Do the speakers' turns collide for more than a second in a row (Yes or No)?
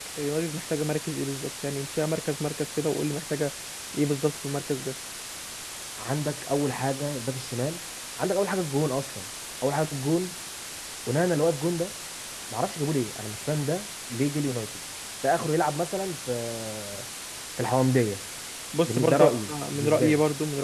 Yes